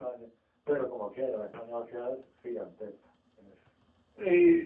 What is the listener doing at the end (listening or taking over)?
taking over